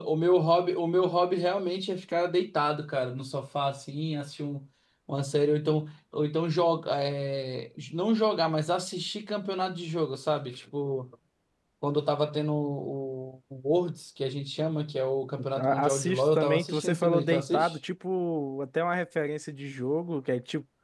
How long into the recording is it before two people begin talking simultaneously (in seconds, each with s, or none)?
15.4 s